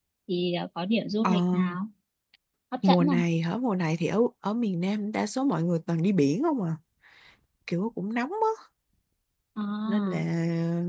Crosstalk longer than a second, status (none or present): none